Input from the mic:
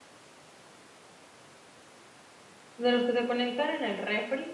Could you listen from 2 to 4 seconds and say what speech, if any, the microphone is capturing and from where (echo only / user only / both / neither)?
user only